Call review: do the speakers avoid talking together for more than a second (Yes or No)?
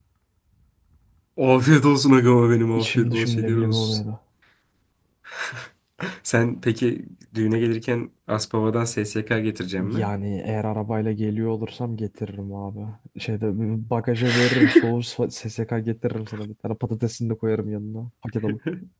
No